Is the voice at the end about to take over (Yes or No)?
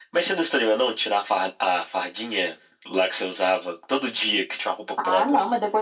Yes